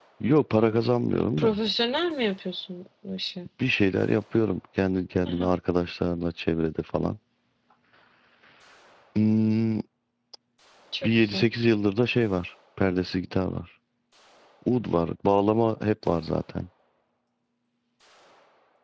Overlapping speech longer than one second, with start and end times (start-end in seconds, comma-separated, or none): none